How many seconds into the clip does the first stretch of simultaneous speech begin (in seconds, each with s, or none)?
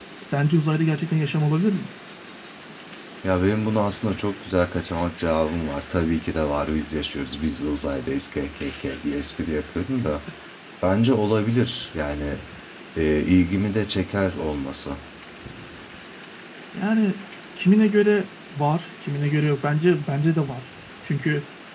none